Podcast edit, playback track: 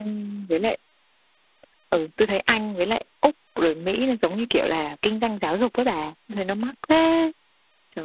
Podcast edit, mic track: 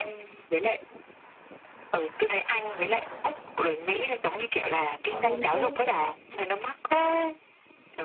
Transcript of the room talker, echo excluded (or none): họ liên kết ờ